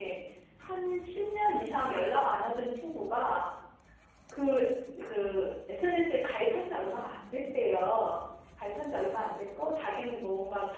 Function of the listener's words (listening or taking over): listening